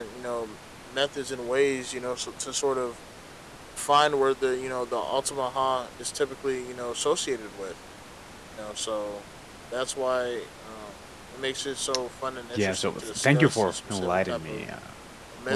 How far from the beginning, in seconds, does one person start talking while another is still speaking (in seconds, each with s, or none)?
12.5 s